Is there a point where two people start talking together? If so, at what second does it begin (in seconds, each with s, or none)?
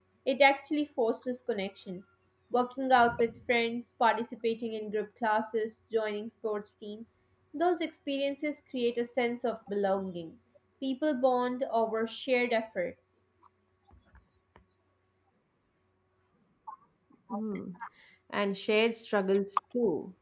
none